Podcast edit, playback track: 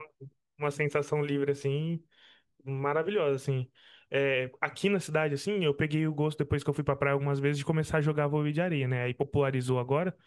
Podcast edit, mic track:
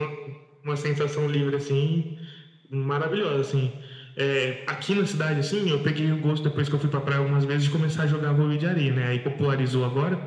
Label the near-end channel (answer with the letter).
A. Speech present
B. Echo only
B